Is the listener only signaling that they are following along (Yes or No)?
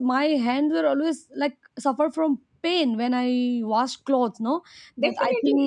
No